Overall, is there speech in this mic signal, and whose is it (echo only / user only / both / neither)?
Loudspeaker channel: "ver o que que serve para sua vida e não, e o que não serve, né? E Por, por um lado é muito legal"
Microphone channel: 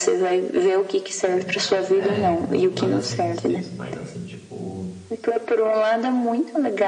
both